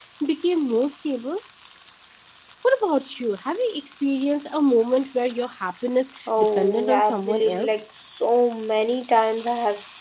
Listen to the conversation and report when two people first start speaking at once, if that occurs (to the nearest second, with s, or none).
6 s